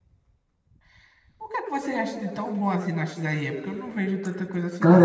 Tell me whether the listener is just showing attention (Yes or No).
No